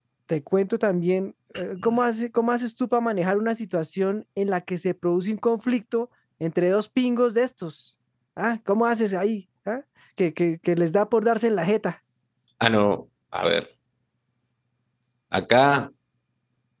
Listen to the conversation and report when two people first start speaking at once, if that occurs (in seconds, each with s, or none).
none